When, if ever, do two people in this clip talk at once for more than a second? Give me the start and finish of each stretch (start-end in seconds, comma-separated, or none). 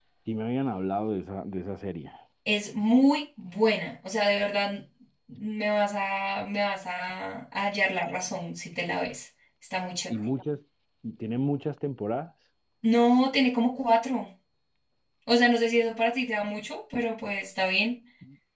none